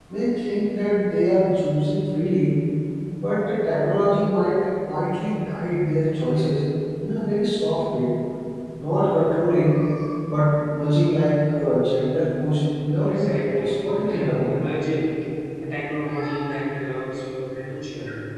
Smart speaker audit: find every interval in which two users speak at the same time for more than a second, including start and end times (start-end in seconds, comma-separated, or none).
13.0-14.6